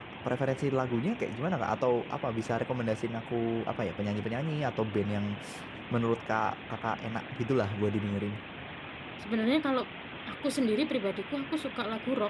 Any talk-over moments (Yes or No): No